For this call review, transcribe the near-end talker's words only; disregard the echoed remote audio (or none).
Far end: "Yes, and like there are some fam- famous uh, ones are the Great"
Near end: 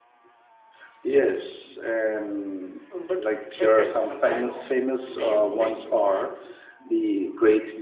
Um, but trekkers sometimes leave waste behind.